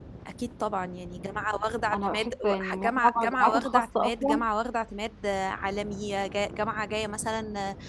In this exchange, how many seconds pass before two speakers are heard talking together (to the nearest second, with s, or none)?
2 s